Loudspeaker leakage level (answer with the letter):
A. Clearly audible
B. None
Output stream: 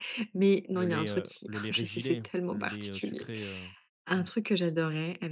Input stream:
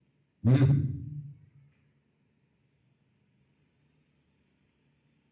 B